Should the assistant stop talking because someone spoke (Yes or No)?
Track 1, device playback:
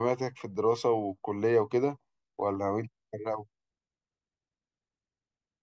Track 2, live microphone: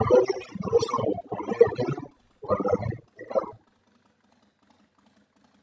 No